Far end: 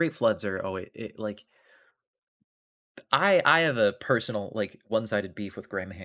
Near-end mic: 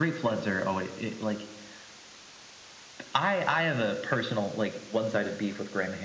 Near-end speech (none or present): none